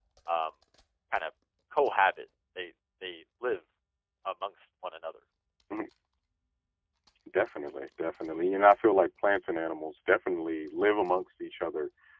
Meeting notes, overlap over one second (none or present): none